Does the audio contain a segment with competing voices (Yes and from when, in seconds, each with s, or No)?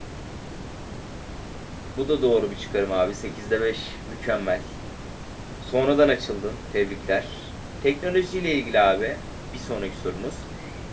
No